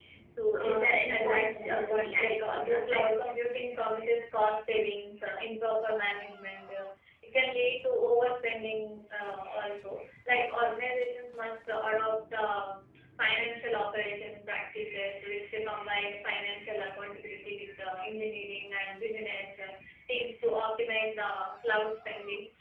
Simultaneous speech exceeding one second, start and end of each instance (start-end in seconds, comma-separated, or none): 0.6-3.0